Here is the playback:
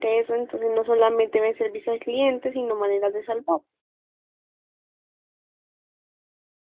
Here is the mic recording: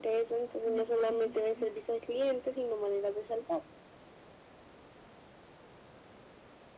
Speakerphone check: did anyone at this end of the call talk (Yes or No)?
Yes